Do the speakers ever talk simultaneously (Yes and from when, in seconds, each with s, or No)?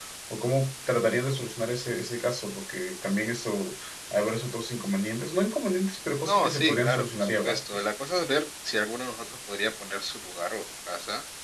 Yes, from 6.2 s